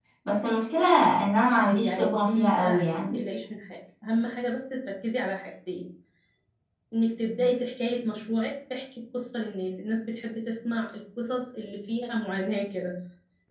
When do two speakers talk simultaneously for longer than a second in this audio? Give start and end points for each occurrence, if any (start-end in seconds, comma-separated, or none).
1.6-3.2